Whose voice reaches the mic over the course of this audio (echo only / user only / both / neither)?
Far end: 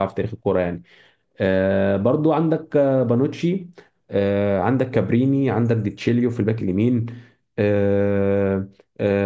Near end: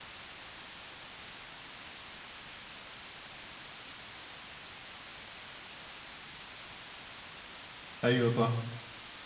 user only